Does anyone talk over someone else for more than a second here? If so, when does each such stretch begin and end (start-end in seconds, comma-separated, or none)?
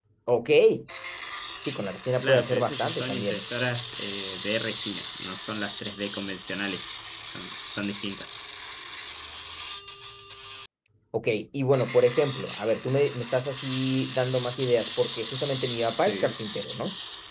2.2-3.4